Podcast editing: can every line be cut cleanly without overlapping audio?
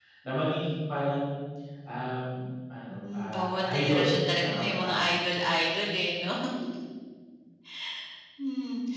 No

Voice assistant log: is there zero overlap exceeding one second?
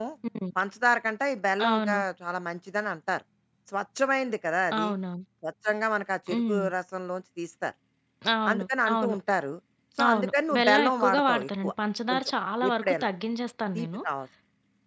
No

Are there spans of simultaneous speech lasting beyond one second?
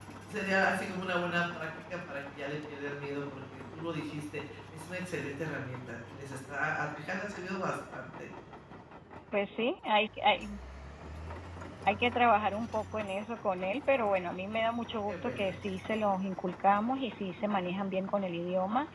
No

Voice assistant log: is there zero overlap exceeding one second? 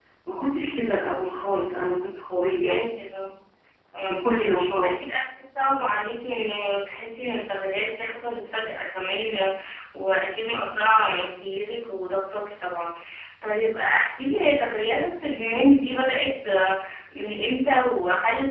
Yes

